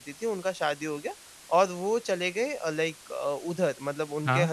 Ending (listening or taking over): listening